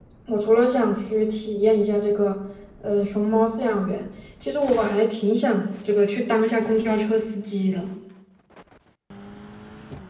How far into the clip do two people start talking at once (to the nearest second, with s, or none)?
none